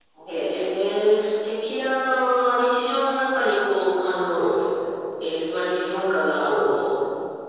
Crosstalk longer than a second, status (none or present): none